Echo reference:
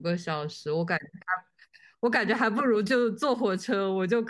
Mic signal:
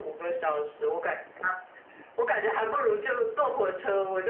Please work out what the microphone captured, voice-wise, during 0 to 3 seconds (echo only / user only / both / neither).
echo only